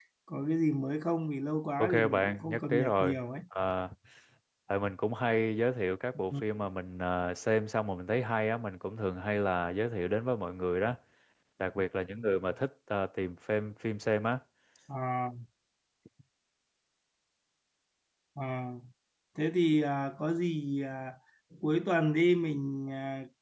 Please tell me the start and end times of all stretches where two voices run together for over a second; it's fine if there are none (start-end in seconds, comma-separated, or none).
1.8-3.2